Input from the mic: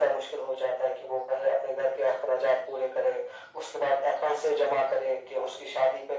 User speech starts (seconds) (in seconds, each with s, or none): none